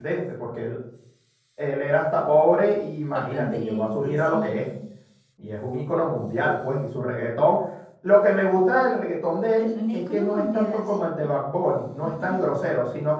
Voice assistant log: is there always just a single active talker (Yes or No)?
No